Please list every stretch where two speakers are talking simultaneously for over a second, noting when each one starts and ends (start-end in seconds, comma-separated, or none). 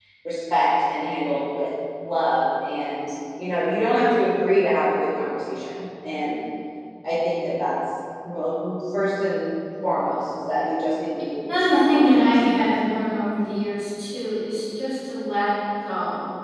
11.5-12.8